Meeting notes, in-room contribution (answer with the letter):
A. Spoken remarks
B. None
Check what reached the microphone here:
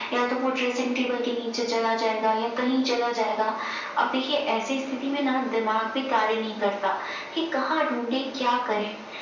B